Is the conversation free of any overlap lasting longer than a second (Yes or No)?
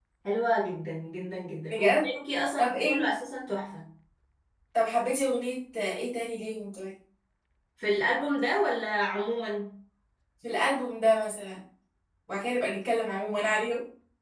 Yes